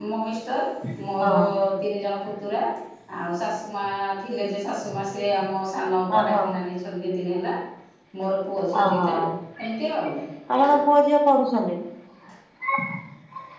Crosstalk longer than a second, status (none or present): none